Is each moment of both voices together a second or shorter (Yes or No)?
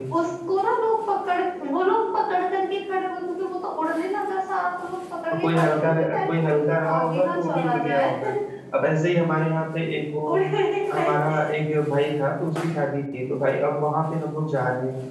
No